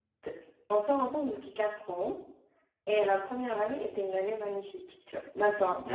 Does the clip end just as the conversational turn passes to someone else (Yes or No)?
Yes